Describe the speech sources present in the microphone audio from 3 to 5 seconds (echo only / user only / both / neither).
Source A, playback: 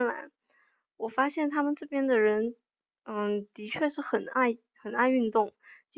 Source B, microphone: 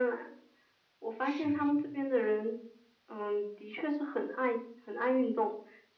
echo only